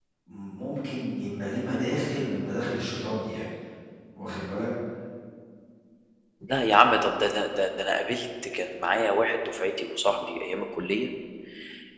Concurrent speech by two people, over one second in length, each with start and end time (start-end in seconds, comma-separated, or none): none